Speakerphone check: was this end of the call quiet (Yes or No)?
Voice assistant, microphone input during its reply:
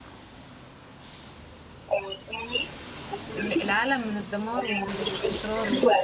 No